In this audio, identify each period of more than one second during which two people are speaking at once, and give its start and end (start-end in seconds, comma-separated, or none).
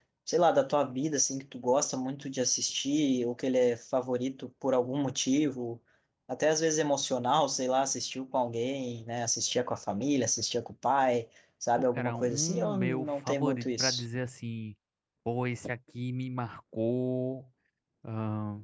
11.8-14.0